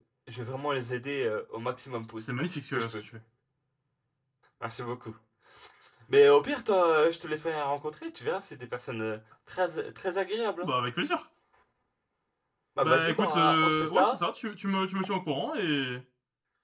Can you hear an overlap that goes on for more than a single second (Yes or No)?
Yes